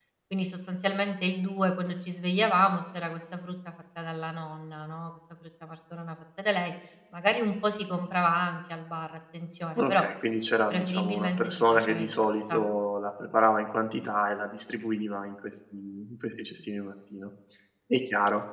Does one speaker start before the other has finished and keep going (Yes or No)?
Yes